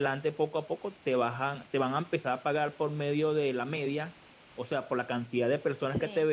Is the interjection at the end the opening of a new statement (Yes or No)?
No